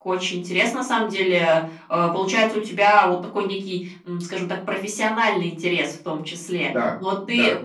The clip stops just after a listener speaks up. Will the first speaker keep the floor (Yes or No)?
Yes